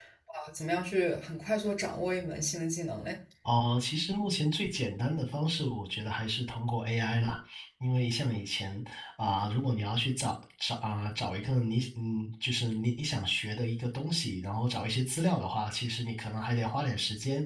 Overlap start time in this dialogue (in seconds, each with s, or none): none